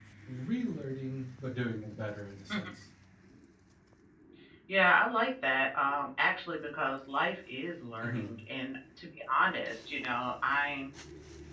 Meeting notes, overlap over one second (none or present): none